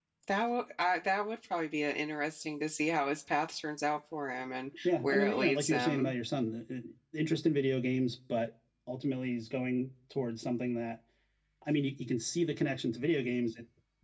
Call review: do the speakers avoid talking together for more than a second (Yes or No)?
No